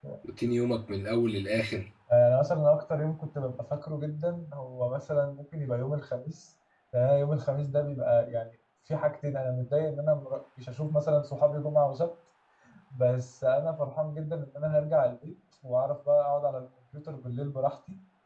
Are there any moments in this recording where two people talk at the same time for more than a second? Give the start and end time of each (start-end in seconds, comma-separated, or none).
none